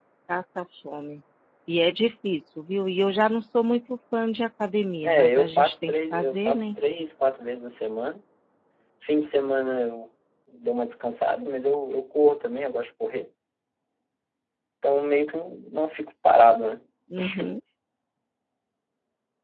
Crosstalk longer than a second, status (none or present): present